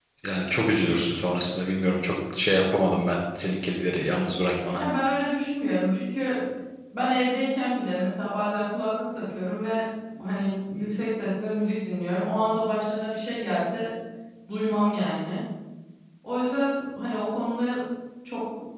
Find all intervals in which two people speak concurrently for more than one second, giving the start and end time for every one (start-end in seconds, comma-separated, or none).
none